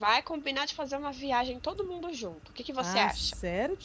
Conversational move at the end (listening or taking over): taking over